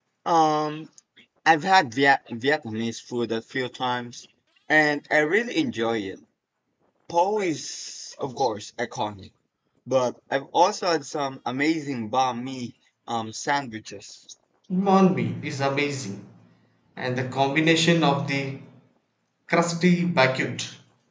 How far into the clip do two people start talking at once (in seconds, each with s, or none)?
none